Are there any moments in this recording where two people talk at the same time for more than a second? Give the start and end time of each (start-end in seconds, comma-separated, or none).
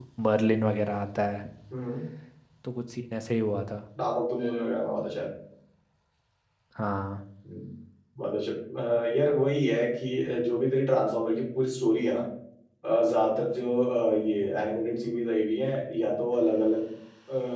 none